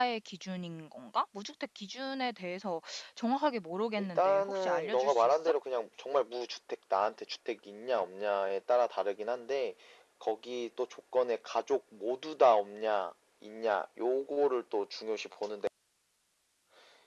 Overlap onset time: 4 s

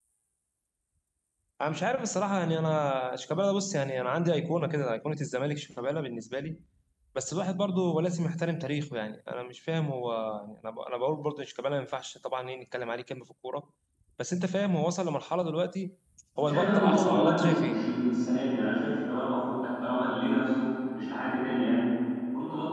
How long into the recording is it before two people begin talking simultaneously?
16 s

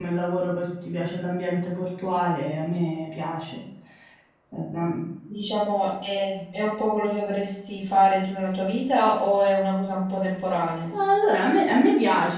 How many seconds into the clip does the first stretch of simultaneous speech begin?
none

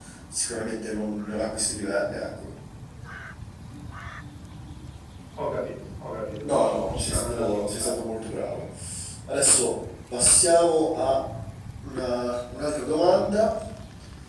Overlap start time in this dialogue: 6 s

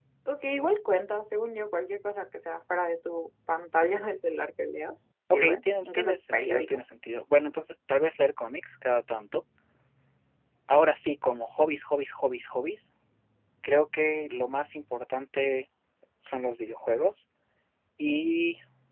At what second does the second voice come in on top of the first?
5 s

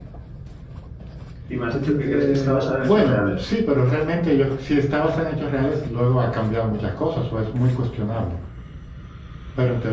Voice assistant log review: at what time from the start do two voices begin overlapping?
2 s

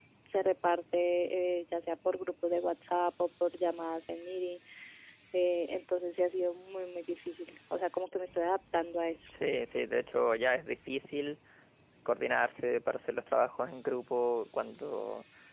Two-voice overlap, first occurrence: none

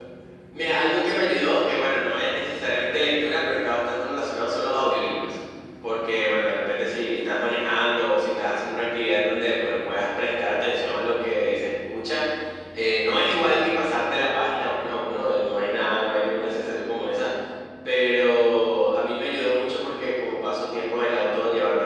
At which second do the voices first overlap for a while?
none

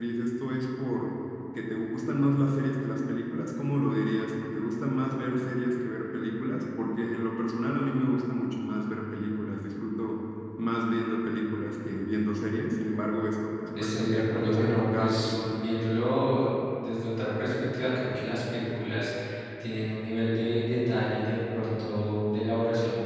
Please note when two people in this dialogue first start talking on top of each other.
14 s

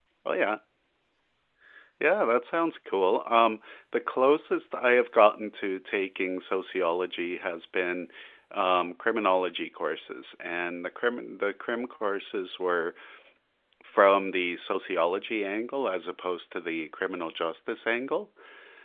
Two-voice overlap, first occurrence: none

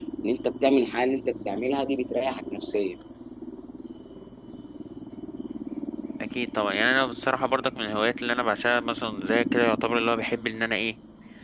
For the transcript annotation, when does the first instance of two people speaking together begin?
none

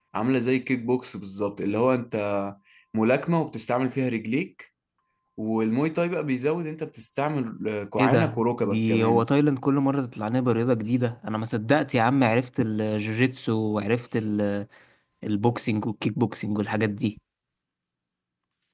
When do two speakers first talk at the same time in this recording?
8 s

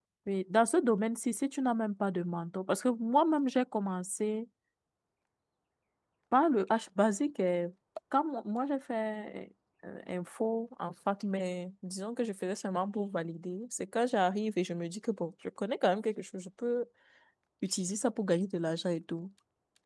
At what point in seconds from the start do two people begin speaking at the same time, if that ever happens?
none

